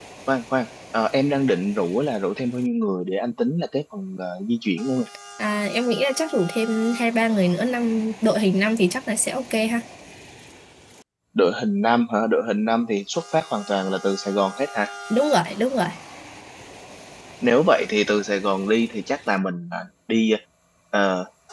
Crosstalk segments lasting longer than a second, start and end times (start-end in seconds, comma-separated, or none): none